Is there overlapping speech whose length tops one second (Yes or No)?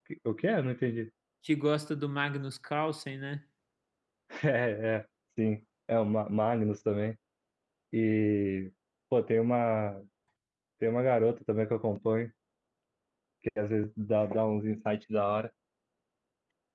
No